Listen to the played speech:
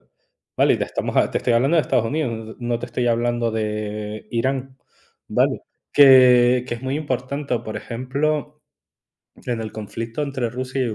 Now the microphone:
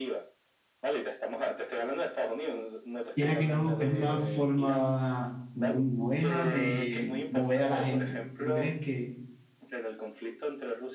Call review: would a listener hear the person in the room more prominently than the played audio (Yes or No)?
Yes